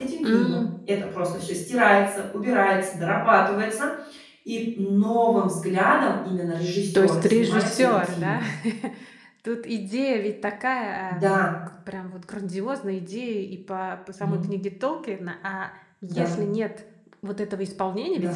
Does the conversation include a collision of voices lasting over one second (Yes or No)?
Yes